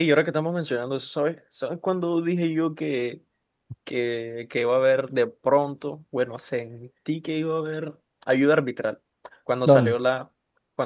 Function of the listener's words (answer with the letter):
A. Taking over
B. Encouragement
B